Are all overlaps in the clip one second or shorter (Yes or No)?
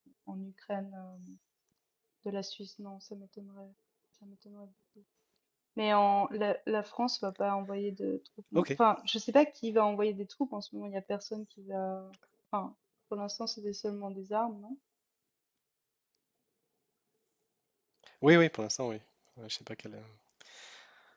Yes